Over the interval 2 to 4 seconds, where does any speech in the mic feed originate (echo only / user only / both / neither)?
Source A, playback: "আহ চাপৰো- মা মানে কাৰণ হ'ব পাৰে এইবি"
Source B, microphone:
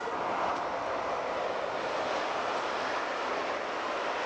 neither